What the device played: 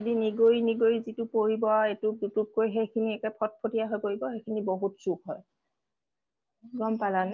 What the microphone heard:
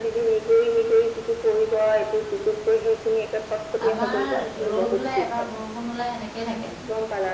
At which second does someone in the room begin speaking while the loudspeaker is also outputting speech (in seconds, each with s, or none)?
3.9 s